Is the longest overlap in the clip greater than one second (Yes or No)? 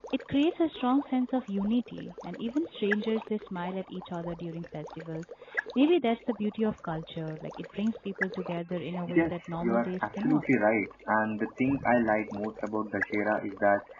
Yes